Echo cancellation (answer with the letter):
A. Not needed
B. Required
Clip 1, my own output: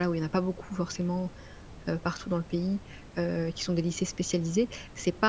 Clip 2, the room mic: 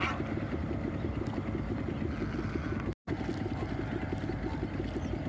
A